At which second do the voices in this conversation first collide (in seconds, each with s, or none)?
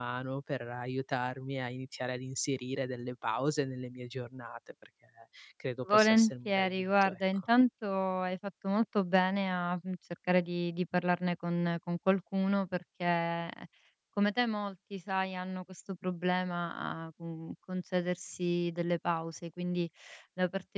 5.9 s